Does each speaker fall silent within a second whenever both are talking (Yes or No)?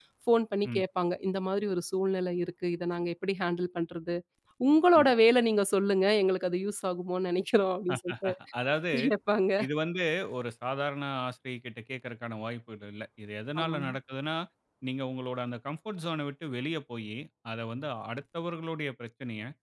Yes